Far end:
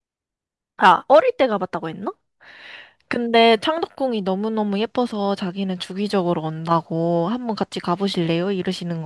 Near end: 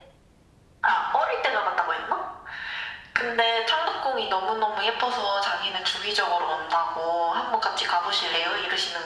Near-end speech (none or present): none